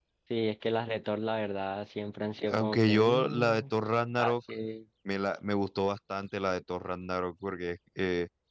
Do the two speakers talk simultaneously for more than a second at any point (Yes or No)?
Yes